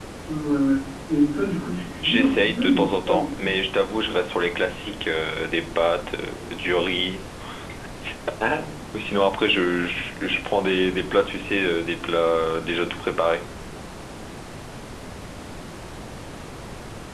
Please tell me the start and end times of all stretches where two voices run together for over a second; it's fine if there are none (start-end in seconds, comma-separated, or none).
2.0-3.5